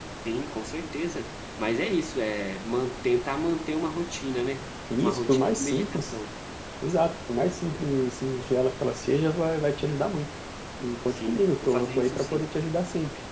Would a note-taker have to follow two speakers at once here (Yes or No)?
Yes